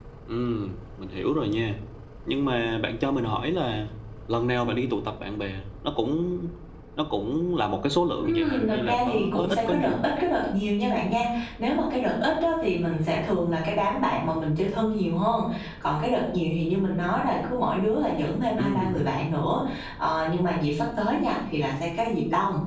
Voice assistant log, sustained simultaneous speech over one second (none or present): present